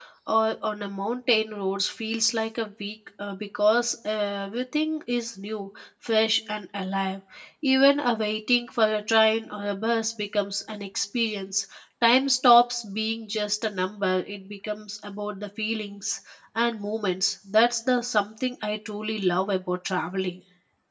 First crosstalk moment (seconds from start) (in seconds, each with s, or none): none